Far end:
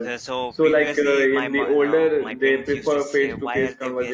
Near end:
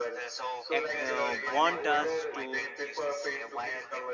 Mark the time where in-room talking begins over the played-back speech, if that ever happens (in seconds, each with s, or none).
0.8 s